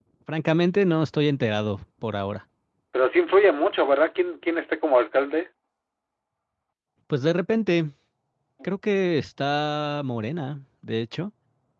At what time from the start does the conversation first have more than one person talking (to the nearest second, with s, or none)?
none